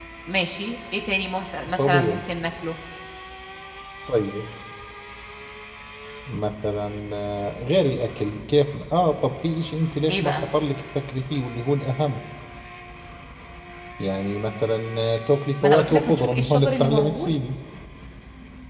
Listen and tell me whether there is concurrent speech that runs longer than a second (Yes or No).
Yes